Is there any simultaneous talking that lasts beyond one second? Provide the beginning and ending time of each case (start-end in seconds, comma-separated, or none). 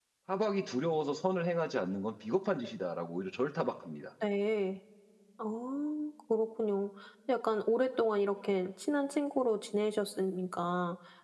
none